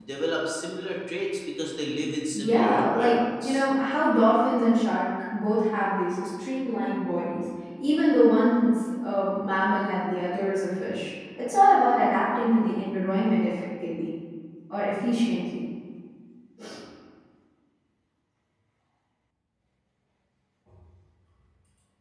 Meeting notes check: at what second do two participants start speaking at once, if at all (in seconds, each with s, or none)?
2.4 s